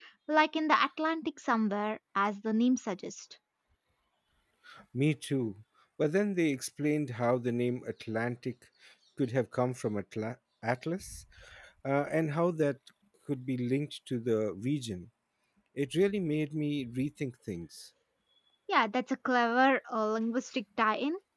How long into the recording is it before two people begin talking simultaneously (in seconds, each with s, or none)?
none